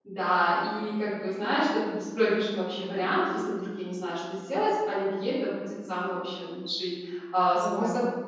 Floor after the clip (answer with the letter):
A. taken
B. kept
B